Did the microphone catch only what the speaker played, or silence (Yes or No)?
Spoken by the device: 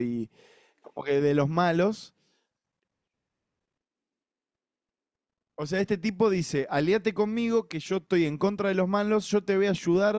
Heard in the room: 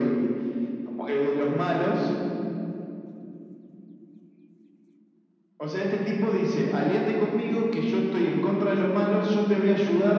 Yes